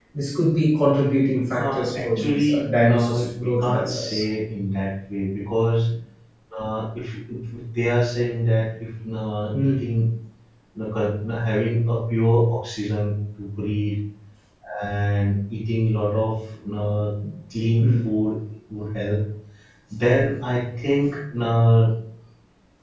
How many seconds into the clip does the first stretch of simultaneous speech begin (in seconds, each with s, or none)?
1.6 s